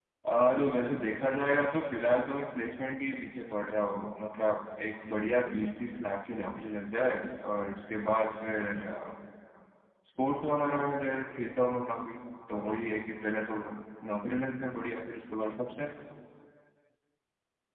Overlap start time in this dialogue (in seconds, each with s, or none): none